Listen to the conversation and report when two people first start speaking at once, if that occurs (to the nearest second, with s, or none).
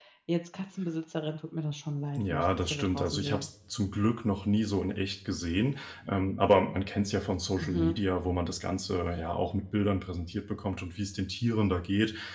2 s